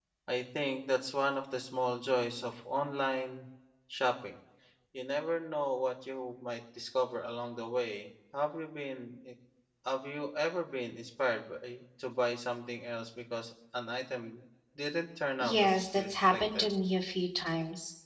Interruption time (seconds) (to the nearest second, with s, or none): 15 s